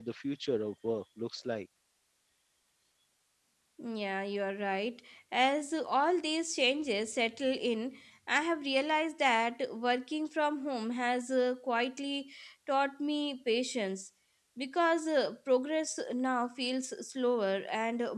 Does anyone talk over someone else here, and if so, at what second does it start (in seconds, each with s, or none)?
none